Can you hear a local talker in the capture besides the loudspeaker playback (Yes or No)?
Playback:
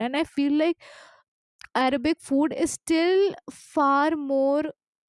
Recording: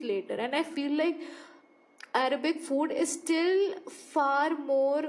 No